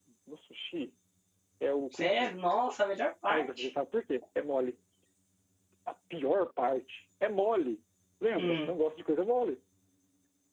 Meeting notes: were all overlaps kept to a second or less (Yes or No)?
Yes